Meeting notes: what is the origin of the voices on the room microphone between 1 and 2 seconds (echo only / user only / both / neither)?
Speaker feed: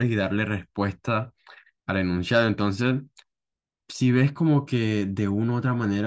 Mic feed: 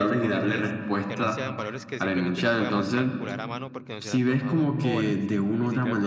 both